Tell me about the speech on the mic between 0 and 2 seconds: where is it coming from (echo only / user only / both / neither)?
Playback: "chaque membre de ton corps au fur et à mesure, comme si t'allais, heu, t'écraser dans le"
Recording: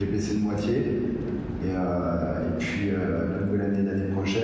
user only